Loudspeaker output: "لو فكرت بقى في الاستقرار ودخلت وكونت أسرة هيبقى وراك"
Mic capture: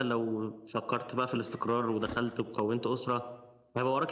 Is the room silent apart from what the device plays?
Yes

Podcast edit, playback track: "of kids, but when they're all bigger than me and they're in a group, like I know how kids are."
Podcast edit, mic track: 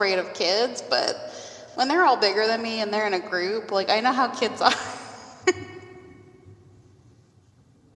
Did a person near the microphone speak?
No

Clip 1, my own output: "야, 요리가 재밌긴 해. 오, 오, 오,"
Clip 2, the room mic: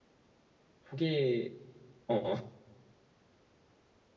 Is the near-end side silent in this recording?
No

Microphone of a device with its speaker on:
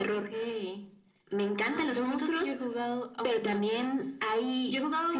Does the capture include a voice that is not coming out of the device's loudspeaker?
No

